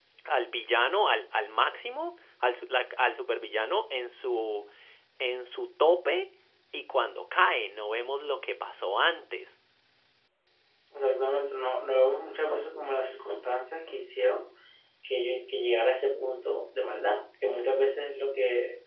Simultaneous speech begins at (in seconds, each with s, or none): none